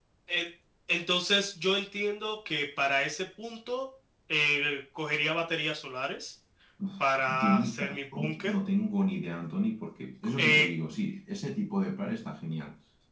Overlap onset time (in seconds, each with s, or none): 7.4 s